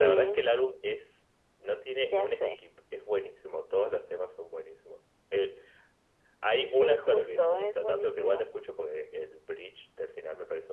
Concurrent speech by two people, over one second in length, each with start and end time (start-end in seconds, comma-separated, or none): 6.6-8.4